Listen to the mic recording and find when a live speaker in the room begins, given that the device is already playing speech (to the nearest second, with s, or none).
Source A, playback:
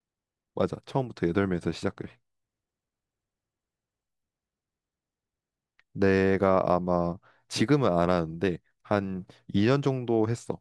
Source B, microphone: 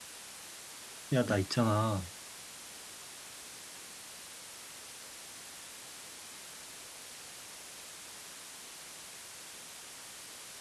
1 s